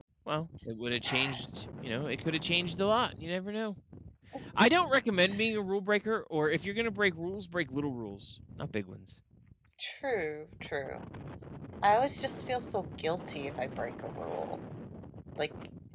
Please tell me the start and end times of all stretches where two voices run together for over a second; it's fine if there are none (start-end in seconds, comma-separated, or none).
none